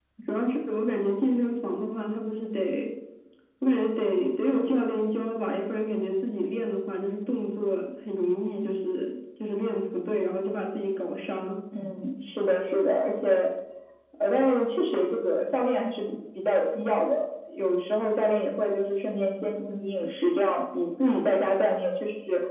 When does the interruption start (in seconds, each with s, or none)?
none